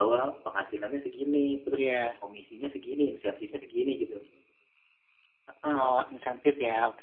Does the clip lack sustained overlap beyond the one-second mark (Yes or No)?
Yes